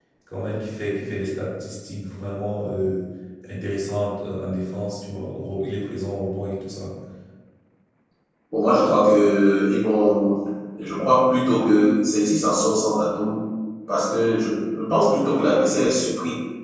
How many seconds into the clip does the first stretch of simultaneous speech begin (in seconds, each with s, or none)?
none